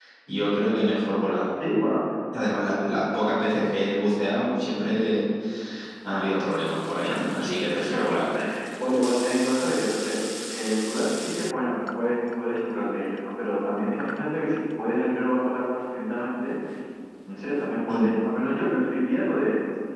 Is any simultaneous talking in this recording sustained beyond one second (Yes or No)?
No